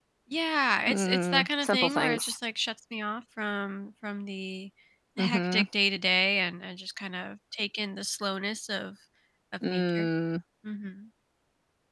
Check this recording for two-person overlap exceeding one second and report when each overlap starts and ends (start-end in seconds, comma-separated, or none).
0.9-2.4